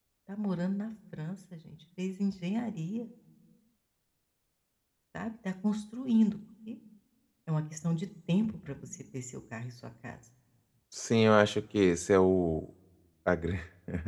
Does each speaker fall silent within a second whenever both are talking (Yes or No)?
Yes